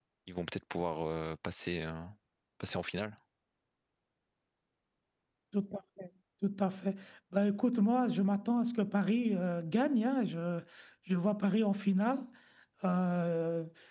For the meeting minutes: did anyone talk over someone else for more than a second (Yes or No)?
No